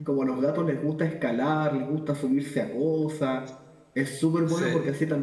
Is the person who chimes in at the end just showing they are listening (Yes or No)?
Yes